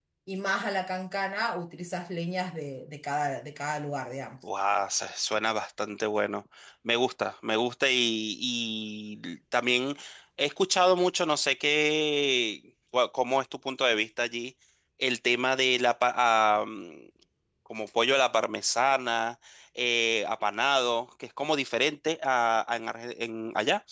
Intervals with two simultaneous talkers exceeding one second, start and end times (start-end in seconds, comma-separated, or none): none